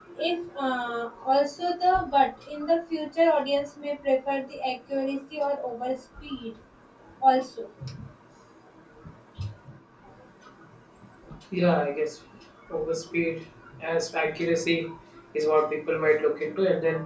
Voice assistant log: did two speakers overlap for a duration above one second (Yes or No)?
No